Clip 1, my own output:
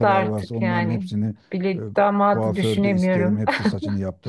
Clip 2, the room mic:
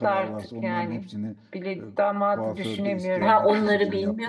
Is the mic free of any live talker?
No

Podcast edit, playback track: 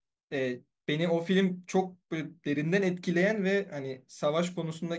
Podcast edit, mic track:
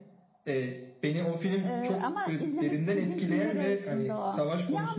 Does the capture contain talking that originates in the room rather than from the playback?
Yes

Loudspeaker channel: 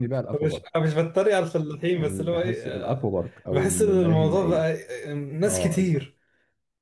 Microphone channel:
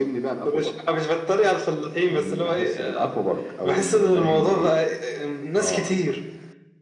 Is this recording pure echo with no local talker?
Yes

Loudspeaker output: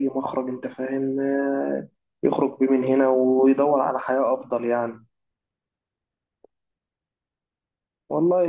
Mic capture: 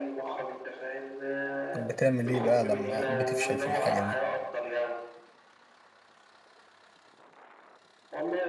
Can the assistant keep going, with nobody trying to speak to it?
No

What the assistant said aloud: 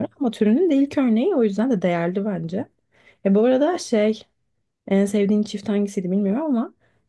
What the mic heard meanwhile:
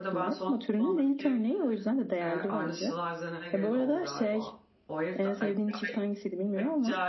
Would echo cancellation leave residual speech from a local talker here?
Yes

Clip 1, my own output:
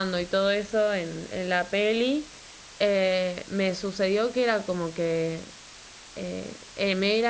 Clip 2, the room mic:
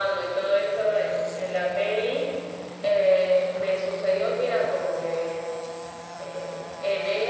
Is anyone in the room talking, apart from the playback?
No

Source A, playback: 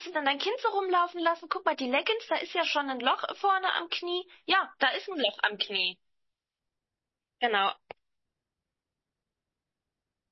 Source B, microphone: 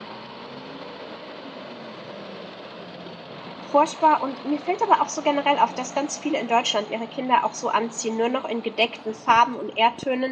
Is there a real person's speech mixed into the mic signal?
Yes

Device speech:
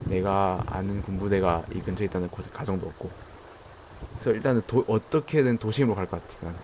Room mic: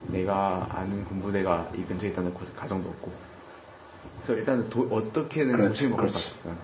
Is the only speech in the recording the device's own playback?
No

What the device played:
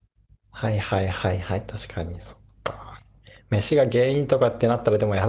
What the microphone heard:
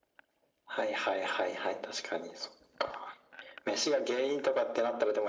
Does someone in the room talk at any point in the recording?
No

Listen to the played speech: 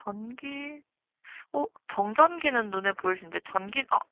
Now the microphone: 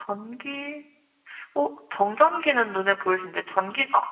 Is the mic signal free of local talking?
Yes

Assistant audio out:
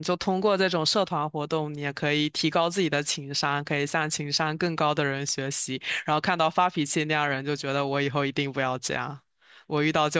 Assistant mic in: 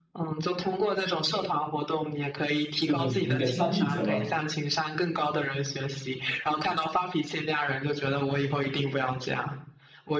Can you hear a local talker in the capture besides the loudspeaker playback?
Yes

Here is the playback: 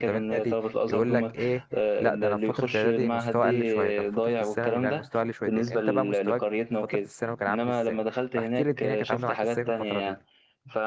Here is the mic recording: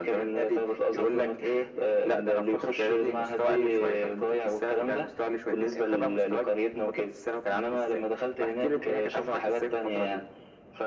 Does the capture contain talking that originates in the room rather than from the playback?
No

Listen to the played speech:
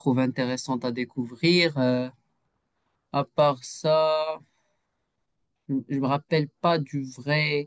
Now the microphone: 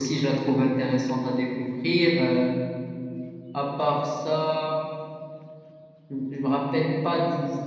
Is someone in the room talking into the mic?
No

